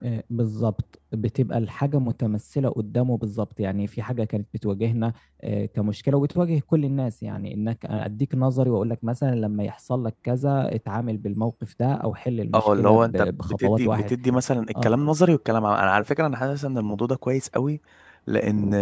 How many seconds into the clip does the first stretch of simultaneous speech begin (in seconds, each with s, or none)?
12.5 s